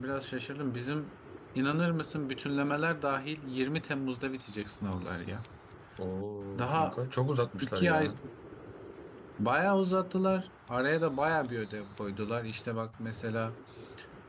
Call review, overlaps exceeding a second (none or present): none